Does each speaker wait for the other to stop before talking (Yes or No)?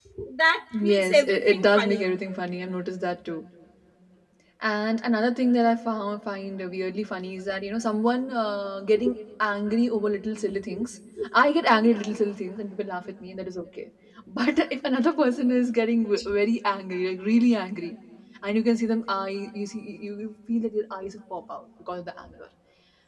No